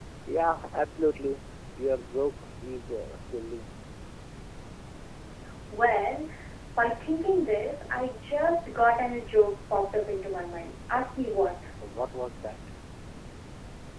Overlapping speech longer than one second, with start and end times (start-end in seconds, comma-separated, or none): none